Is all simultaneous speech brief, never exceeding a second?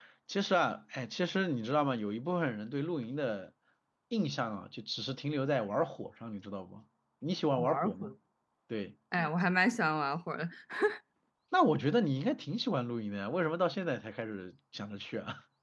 Yes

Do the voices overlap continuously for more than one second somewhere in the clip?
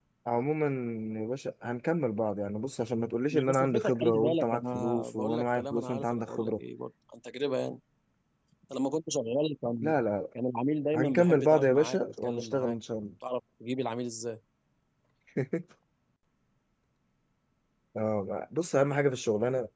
Yes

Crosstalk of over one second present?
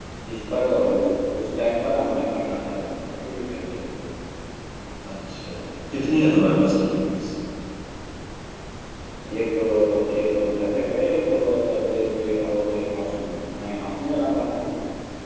No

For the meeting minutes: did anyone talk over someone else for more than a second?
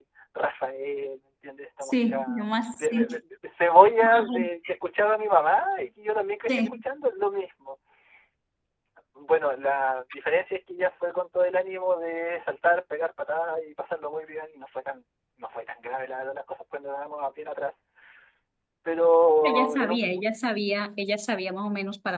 Yes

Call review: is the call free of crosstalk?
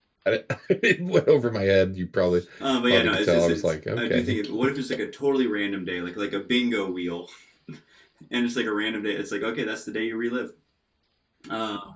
No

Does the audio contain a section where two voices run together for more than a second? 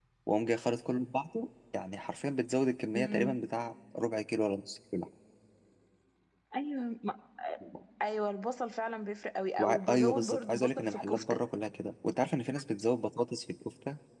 Yes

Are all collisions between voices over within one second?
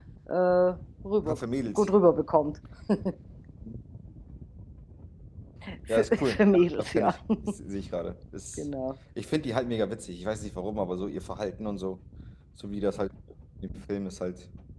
No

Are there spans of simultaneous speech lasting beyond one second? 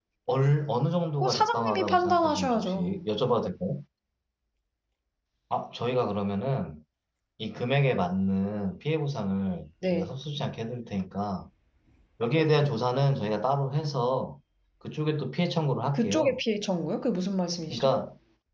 Yes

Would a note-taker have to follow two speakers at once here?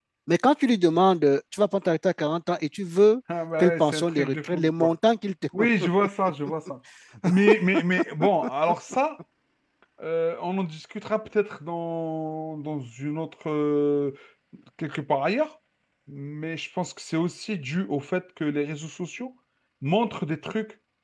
Yes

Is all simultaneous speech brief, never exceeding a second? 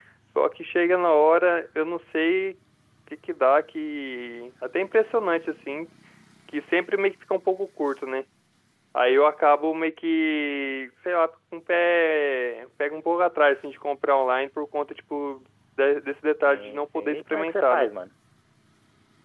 No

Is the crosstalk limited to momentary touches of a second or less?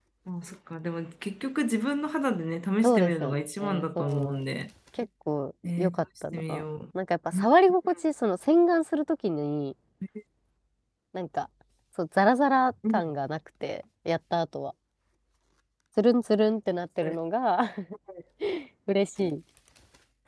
No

